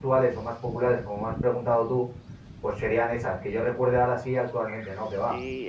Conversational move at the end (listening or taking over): taking over